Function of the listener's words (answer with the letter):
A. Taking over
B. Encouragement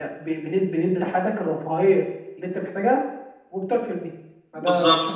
A